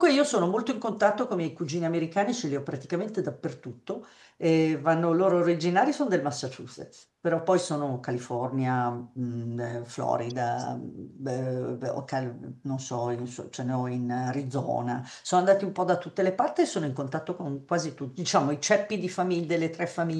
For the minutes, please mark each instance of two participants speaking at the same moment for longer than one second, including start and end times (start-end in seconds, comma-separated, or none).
none